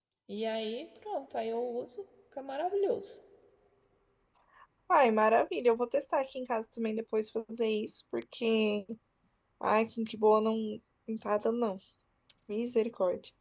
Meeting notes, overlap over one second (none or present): none